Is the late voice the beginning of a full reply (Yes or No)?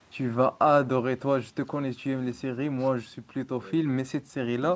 No